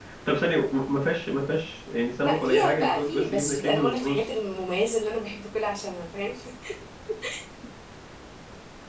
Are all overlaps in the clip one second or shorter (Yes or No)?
No